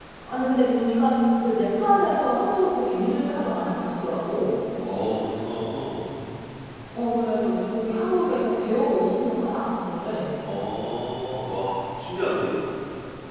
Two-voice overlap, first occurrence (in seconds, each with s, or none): none